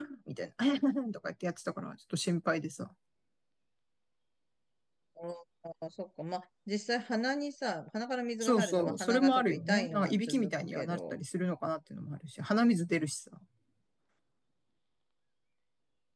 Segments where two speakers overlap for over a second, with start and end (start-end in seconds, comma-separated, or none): 8.4-11.1